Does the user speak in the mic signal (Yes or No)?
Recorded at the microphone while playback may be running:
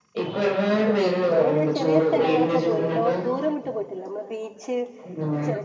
Yes